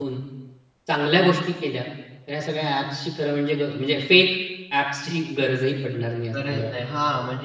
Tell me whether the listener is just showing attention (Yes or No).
No